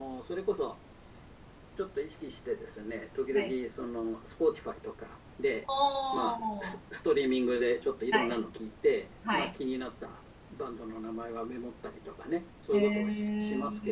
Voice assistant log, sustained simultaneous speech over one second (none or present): present